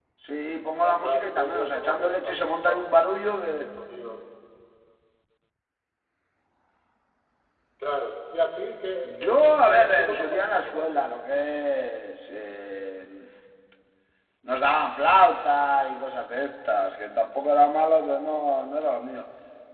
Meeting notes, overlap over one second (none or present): present